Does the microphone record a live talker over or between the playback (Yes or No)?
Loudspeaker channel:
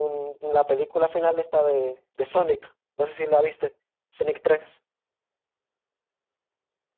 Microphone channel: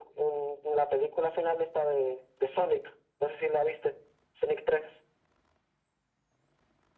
No